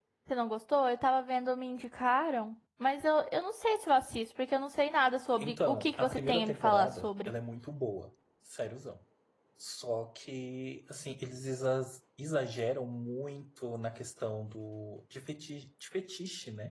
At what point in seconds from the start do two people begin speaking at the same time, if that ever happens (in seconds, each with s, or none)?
5.4 s